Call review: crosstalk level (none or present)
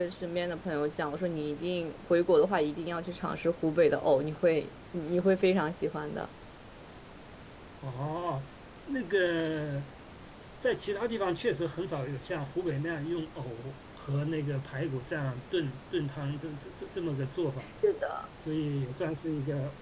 none